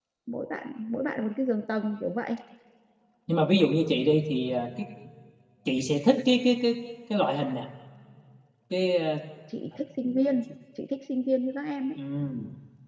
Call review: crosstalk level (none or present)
none